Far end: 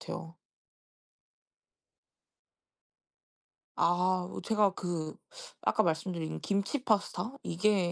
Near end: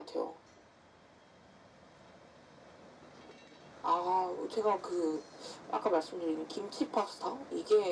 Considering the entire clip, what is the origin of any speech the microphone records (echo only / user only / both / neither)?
echo only